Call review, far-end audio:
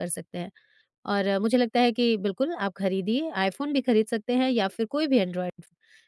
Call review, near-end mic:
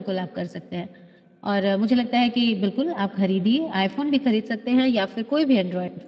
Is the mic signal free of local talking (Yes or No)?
Yes